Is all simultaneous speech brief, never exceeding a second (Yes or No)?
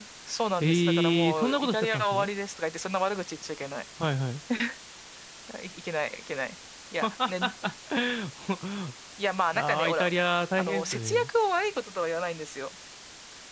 No